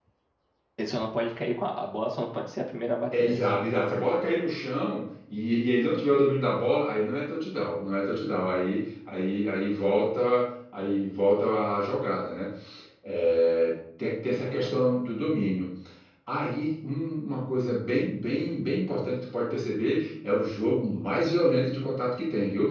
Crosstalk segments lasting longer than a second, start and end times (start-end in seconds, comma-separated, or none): none